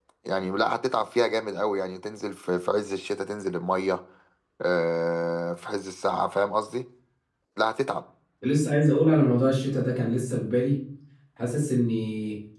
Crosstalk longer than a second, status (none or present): none